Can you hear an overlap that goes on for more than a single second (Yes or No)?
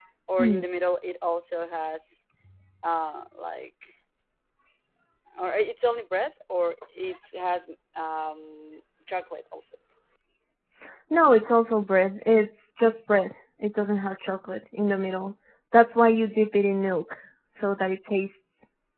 No